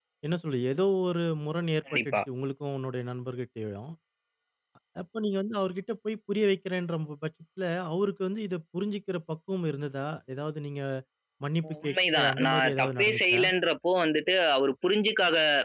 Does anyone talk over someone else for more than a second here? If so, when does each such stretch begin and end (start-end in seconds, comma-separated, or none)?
11.7-13.4